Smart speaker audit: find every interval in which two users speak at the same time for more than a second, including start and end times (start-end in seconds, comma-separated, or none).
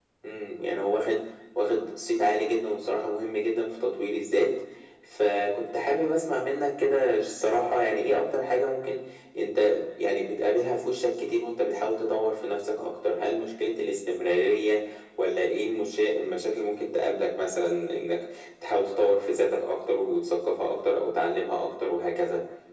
none